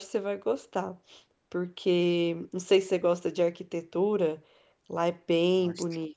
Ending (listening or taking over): listening